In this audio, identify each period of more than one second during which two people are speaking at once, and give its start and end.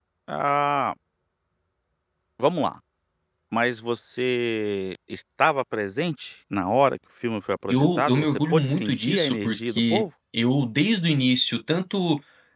7.7-10.1

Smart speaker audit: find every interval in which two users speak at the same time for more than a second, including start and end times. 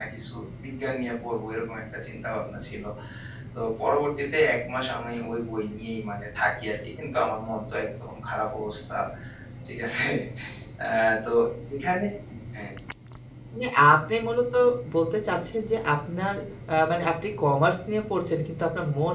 none

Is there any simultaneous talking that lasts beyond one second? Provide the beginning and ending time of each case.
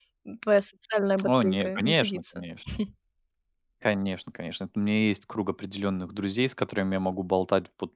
1.2-2.4

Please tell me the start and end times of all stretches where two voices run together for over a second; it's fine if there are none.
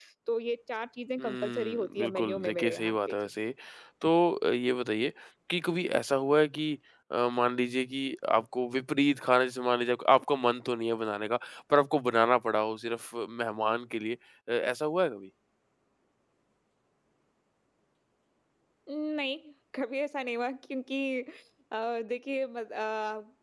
1.2-3.2

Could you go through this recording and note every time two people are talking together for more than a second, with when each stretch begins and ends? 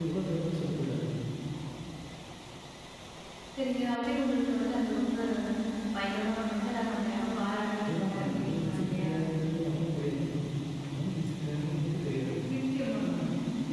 7.8-9.1

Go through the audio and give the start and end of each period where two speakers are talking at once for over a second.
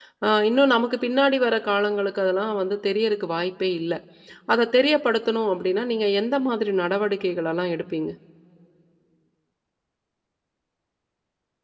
none

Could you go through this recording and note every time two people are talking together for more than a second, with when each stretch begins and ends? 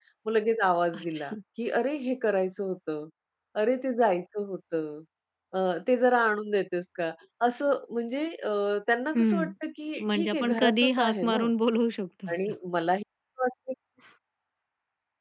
10.1-11.4

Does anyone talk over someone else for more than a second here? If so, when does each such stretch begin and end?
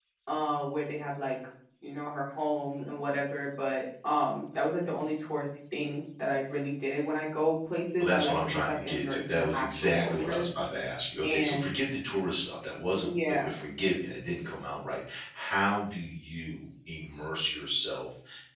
8.0-10.5

